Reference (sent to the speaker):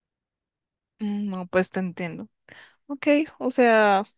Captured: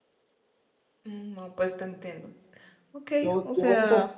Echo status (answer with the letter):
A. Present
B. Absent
A